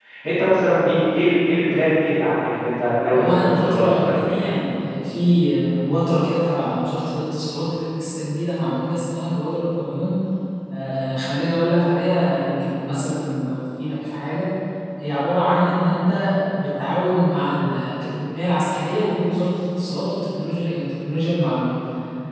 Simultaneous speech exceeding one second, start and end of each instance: 3.1-4.4

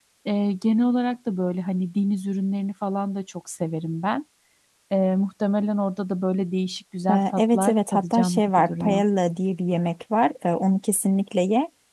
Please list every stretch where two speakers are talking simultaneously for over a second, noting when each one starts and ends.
7.1-9.0

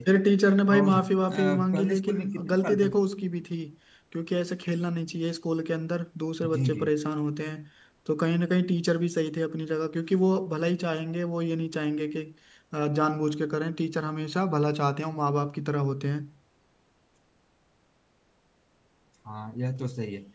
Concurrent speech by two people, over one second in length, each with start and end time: 0.8-3.0

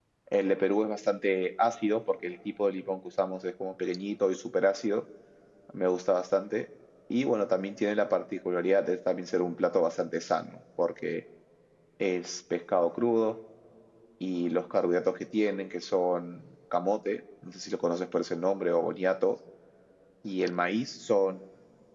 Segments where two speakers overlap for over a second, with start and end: none

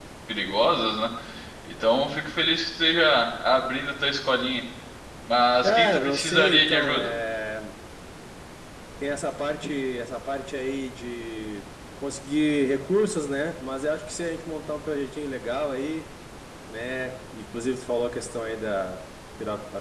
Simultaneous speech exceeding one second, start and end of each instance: 5.6-7.1

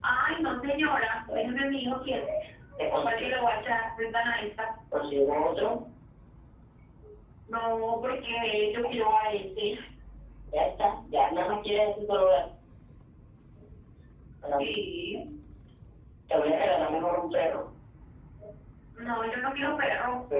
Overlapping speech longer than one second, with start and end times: none

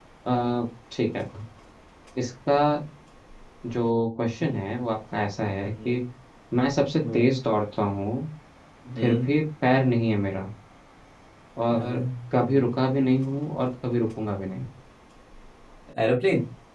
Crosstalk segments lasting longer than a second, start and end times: none

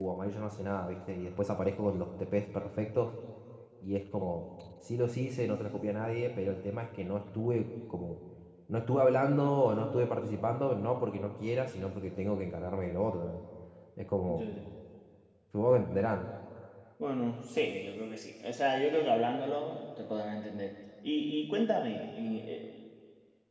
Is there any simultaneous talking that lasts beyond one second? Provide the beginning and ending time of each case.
none

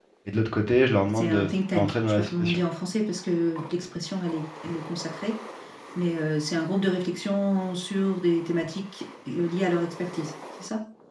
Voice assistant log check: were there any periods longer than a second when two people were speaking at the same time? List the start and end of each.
1.1-2.6

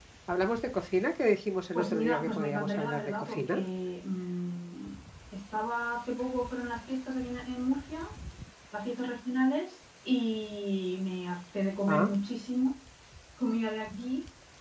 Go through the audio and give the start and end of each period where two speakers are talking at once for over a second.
1.7-3.6

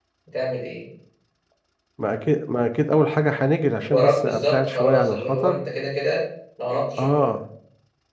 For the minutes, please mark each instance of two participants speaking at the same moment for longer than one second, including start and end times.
3.9-5.6

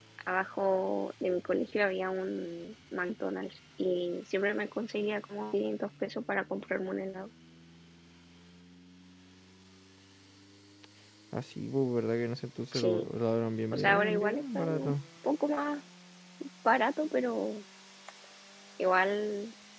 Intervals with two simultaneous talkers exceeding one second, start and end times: 13.7-14.9

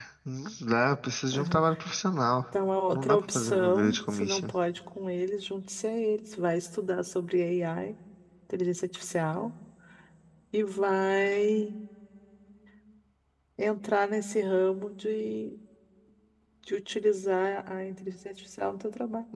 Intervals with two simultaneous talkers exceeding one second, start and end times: 2.9-4.5

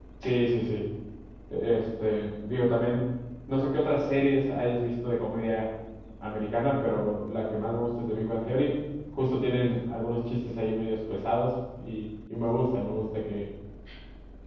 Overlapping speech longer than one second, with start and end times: none

